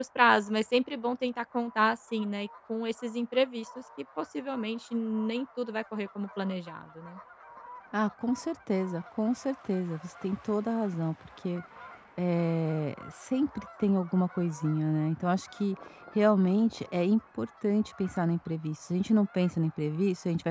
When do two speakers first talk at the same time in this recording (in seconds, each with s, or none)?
none